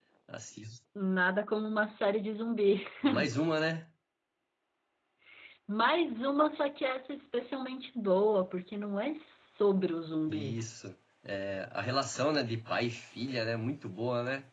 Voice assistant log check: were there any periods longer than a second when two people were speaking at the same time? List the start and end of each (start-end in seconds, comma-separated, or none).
none